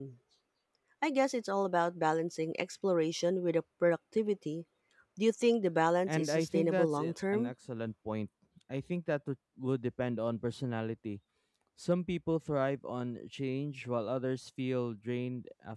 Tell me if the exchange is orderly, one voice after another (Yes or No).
No